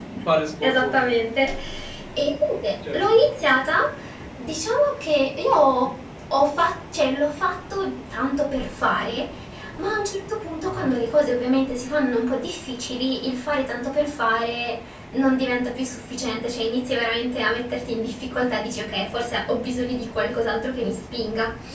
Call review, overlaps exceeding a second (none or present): none